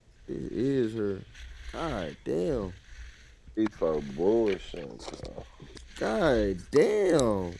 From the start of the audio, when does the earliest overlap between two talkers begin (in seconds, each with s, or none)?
none